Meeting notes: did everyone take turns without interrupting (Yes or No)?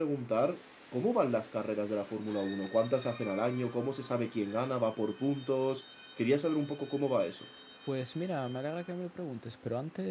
Yes